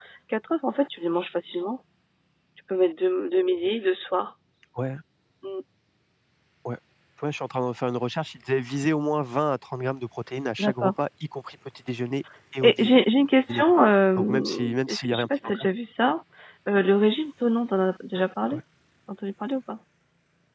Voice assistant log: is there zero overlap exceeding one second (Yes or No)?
No